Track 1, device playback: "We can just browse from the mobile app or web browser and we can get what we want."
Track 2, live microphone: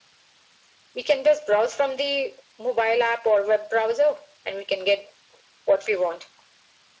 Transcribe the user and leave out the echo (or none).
none